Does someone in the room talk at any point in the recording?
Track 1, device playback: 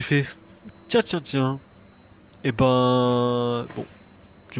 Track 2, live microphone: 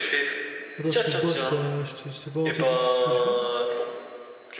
Yes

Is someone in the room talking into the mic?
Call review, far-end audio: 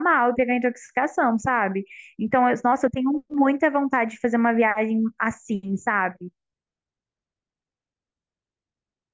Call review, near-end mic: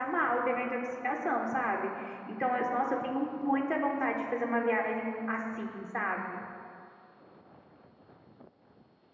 No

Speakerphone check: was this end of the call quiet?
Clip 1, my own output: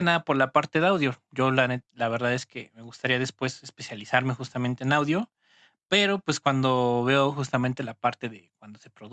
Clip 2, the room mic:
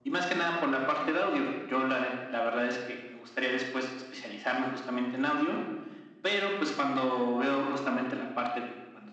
Yes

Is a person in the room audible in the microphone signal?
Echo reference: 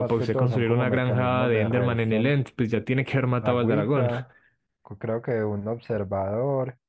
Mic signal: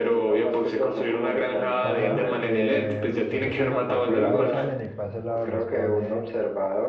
Yes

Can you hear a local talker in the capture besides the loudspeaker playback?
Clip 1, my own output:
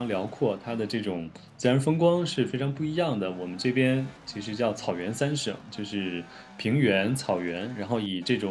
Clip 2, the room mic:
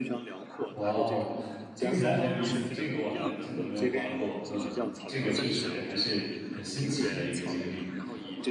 Yes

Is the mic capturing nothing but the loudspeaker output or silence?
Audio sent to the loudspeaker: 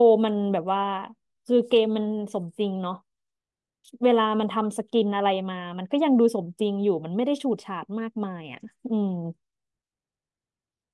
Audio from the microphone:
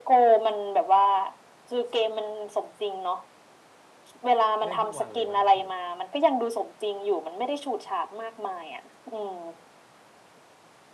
No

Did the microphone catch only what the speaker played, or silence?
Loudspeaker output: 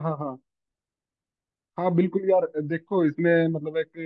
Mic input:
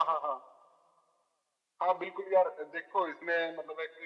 Yes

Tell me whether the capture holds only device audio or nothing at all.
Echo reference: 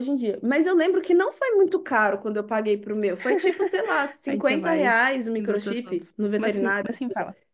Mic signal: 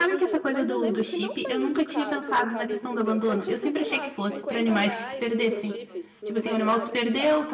No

